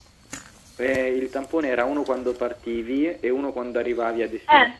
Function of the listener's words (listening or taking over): taking over